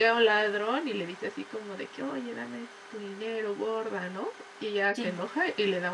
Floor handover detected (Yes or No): No